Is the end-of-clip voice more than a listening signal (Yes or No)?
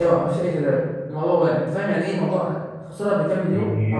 Yes